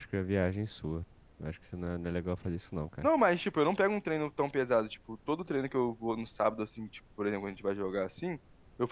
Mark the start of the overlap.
none

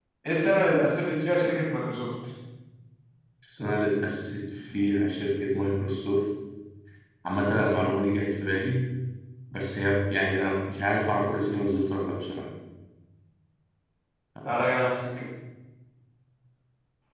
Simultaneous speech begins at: none

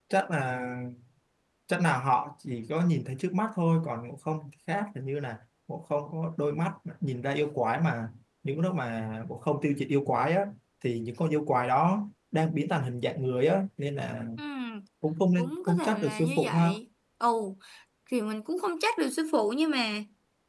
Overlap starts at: 15.4 s

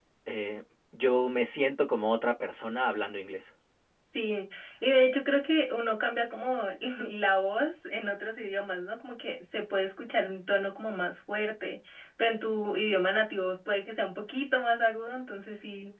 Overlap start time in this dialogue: none

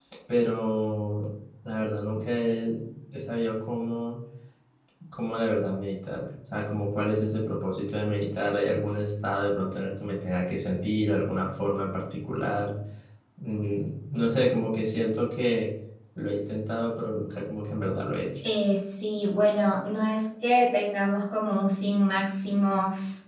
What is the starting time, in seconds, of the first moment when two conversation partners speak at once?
none

